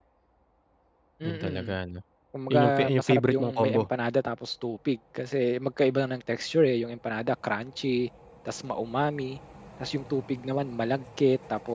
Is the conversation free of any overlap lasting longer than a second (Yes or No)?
No